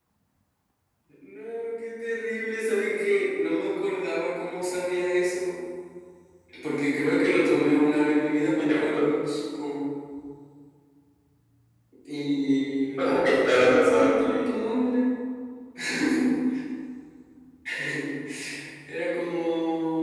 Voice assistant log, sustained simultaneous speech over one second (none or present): present